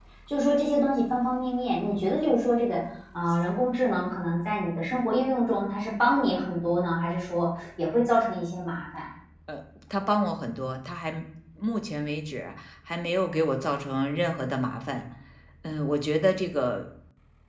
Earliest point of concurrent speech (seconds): none

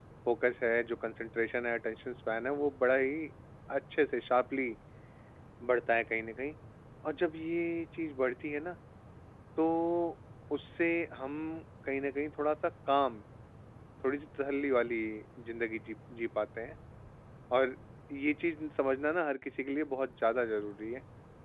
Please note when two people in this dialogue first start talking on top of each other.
none

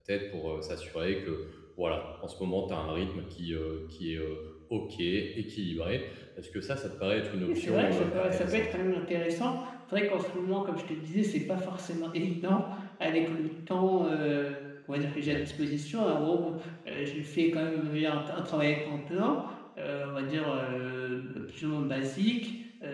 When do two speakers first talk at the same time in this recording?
7.5 s

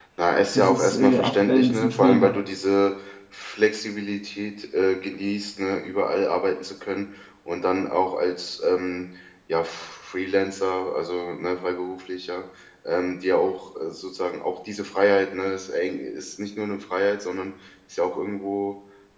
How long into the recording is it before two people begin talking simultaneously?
0.6 s

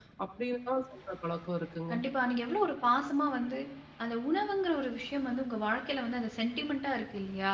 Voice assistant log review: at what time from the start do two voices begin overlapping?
none

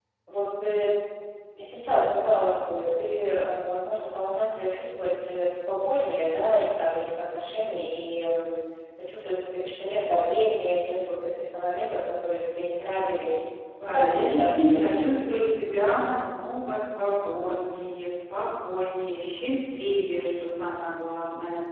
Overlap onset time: 13.8 s

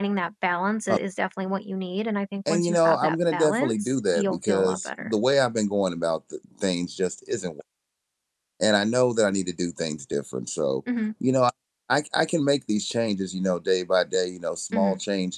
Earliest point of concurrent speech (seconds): 2.5 s

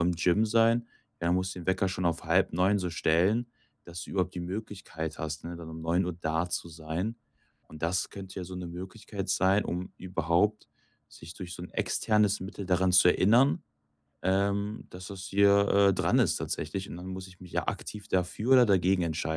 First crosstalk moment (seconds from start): none

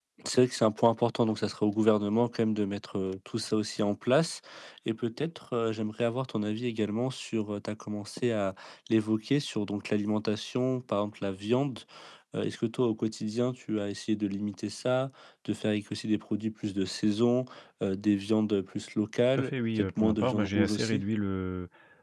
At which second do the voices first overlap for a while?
19.3 s

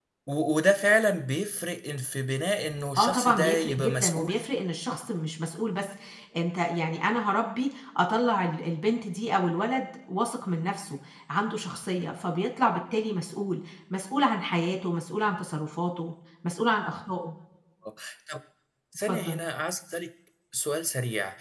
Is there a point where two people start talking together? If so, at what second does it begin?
3.0 s

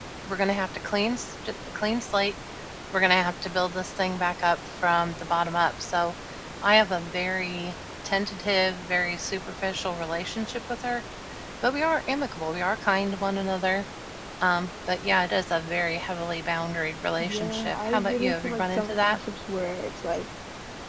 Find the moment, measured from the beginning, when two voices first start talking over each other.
17.2 s

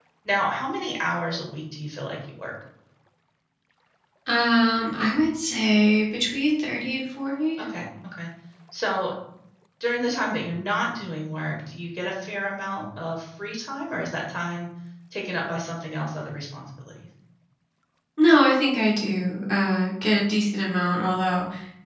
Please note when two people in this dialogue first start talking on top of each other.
none

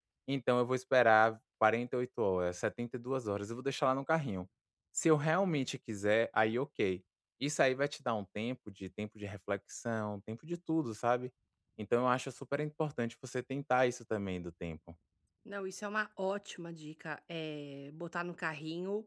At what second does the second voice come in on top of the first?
none

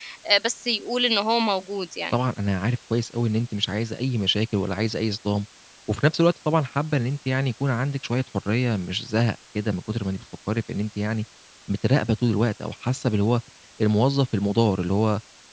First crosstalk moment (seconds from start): none

